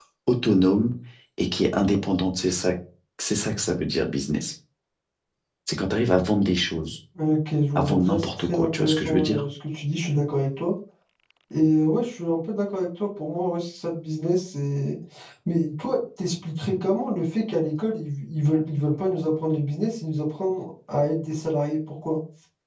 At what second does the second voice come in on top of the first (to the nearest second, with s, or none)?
8 s